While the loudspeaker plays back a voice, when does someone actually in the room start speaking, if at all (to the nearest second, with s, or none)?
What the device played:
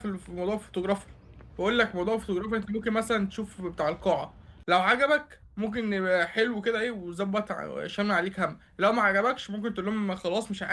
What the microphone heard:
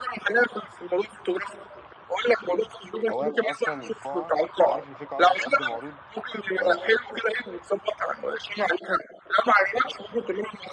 3 s